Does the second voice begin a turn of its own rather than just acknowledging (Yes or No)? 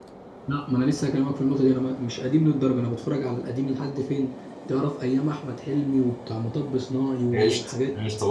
Yes